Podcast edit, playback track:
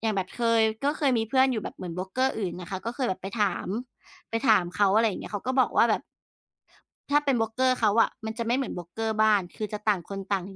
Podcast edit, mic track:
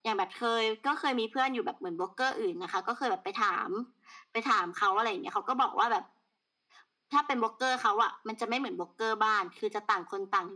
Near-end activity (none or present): none